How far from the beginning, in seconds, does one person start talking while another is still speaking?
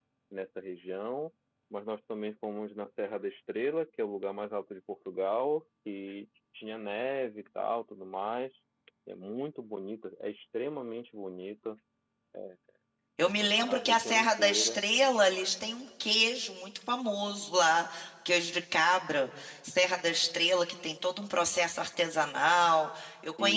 13.5 s

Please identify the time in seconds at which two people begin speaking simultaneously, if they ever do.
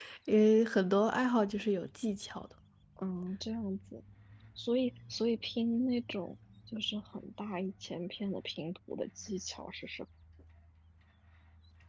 none

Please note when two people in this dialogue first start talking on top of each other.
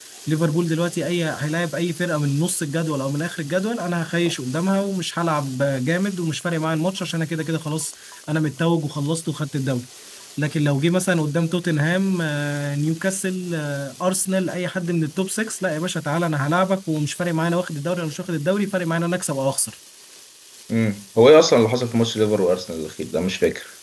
none

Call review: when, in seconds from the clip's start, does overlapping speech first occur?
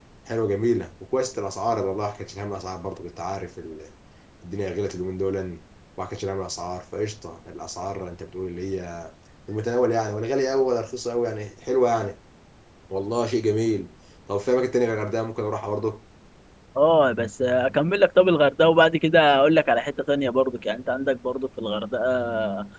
none

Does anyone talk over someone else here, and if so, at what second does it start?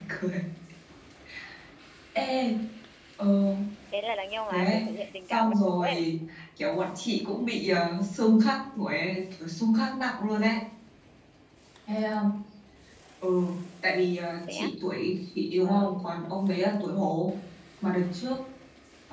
4.5 s

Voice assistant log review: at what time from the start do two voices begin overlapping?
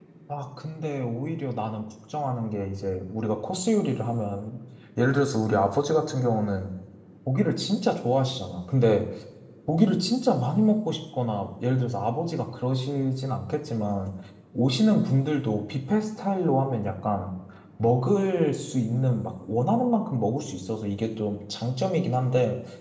none

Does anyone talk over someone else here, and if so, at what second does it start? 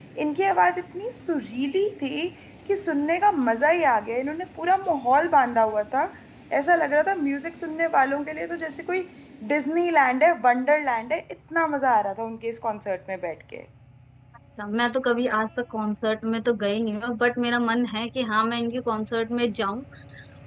none

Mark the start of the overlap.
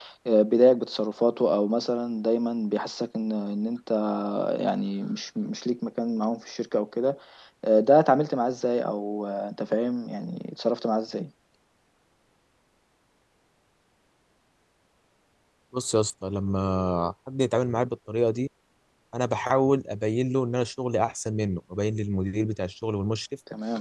none

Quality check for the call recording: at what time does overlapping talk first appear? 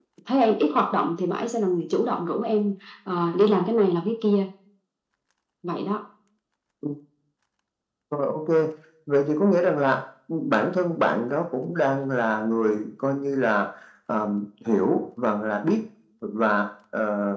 none

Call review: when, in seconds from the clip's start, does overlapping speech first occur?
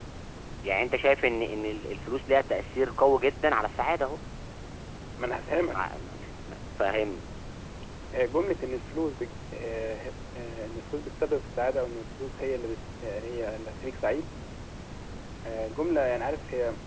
none

